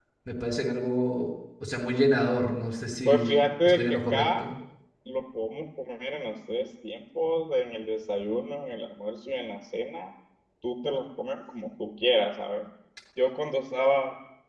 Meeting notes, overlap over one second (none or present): present